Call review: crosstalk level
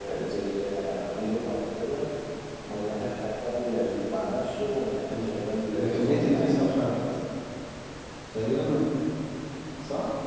present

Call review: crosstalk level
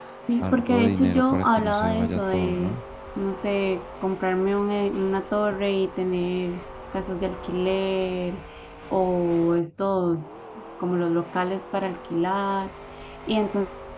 present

